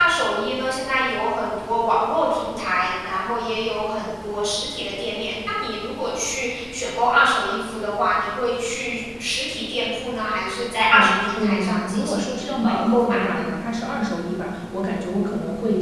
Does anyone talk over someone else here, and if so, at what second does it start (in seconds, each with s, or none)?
10.9 s